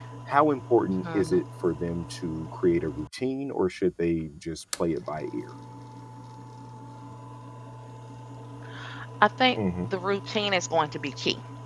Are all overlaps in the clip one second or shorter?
Yes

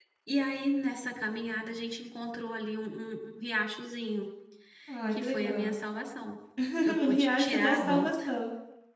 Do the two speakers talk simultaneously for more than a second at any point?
Yes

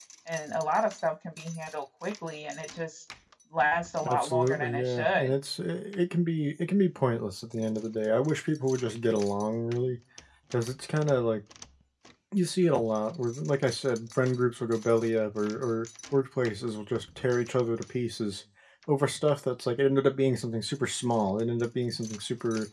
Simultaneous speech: Yes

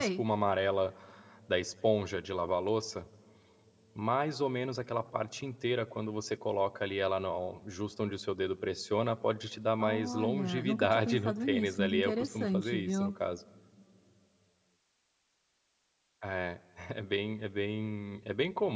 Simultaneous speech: Yes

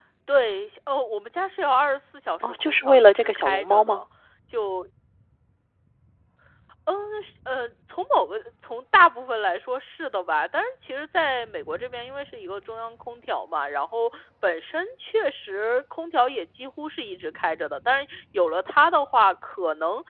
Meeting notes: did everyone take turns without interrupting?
No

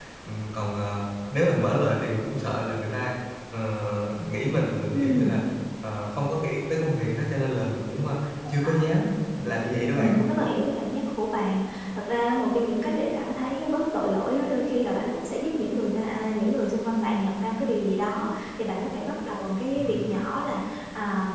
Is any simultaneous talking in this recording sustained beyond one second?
No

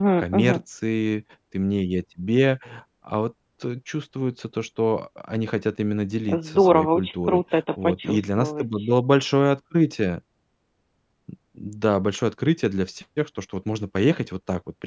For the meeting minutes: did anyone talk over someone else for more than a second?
Yes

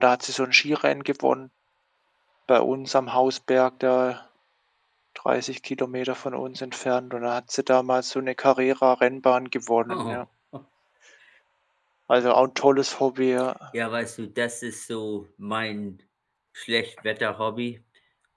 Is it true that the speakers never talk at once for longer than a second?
Yes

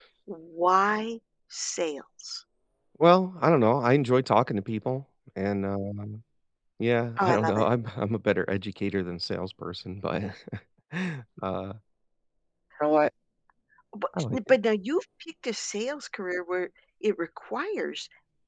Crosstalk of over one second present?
No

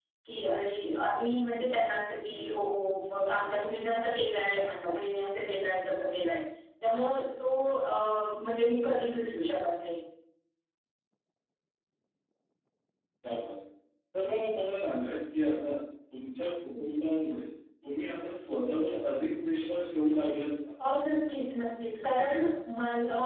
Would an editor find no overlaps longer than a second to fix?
Yes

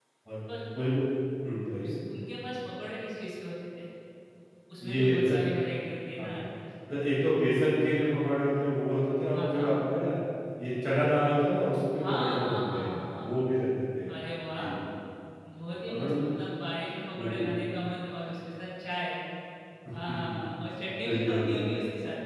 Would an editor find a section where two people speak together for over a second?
Yes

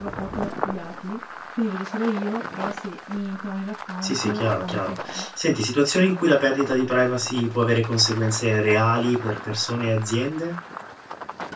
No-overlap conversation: No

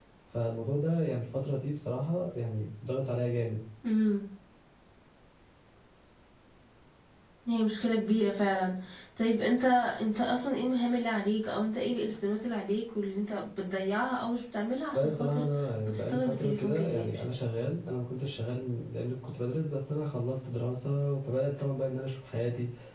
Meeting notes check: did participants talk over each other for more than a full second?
Yes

